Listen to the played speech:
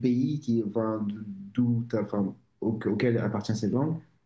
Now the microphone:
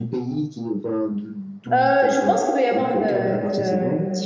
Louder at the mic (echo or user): user